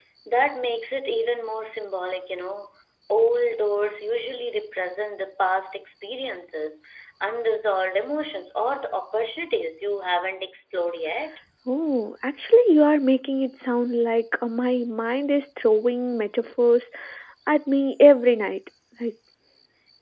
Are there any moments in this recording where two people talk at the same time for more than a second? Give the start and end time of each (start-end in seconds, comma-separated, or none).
none